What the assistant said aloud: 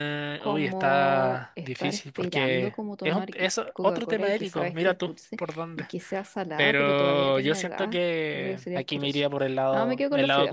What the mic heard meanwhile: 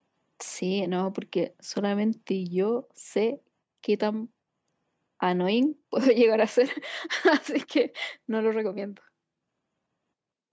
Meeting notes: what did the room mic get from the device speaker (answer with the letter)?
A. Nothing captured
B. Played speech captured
A